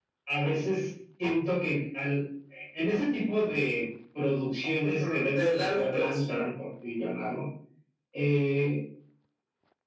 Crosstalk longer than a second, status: present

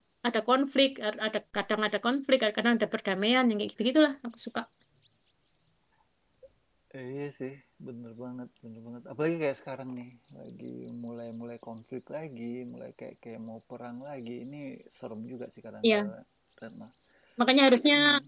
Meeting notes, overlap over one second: none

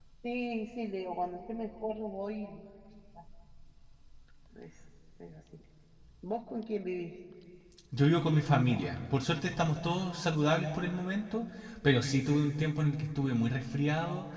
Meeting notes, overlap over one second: none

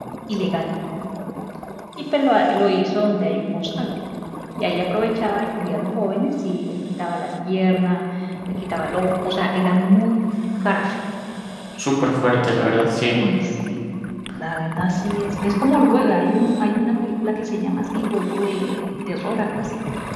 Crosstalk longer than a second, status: none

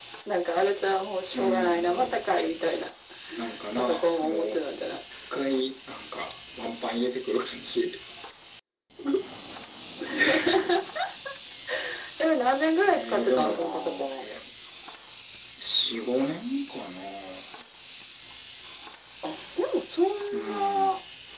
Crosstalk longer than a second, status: present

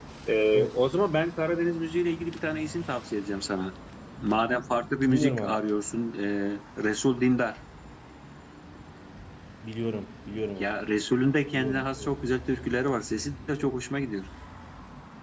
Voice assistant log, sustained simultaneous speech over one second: none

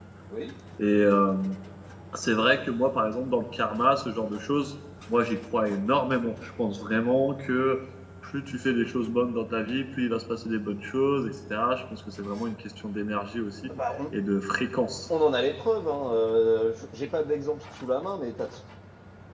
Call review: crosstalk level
none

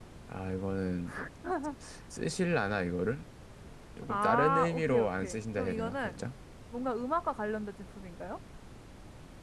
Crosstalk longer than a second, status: present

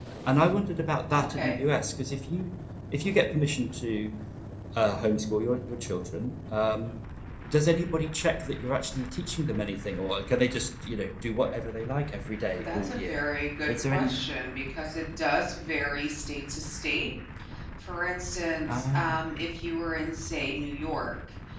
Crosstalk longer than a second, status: none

